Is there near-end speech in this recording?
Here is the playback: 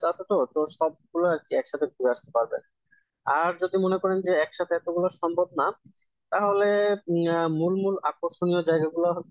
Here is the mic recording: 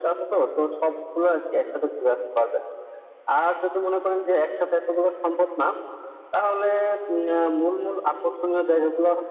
No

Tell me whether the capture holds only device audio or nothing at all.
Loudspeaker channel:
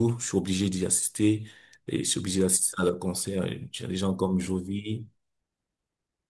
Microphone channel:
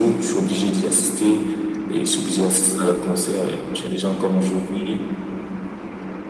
Yes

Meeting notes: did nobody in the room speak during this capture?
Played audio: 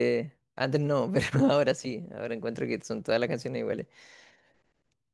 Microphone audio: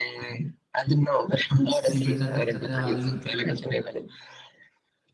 No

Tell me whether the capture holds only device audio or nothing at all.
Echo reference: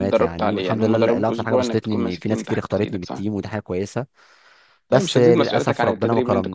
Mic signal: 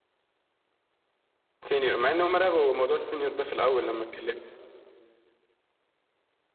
No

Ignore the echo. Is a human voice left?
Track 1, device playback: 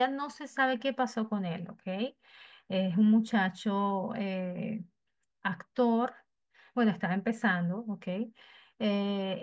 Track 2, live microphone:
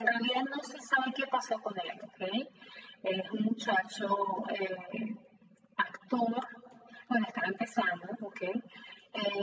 No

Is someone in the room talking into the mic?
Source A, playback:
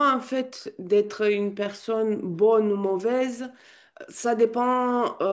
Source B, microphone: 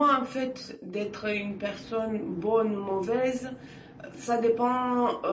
No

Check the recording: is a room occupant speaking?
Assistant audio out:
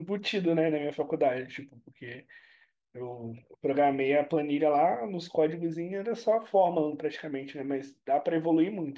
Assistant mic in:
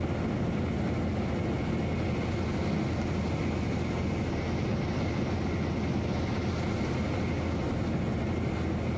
No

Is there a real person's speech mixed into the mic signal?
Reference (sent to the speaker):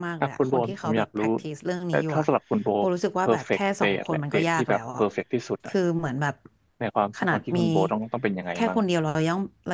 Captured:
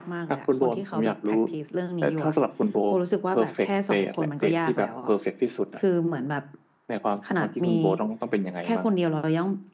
No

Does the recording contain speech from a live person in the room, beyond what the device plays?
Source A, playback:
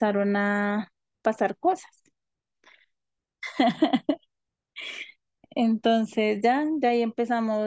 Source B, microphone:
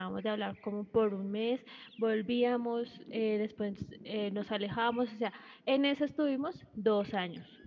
Yes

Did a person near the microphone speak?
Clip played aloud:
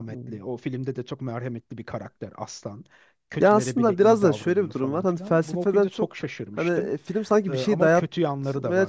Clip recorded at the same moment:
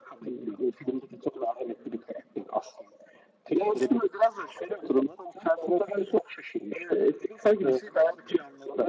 No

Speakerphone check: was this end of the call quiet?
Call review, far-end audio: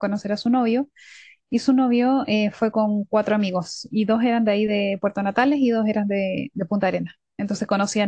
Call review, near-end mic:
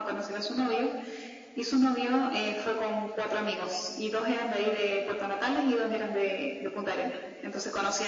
Yes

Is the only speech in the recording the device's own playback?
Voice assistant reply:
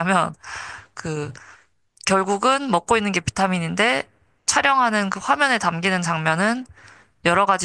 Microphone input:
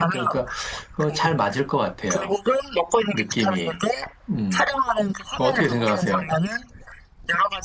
No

